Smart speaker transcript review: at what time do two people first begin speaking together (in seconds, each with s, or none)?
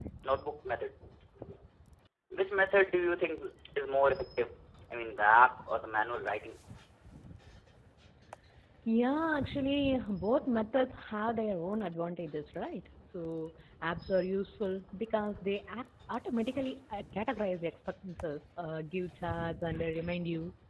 none